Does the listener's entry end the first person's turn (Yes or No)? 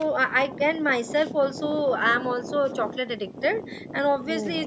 No